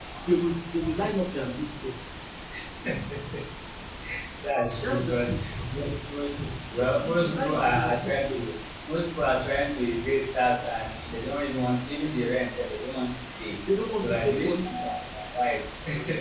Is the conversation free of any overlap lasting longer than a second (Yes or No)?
No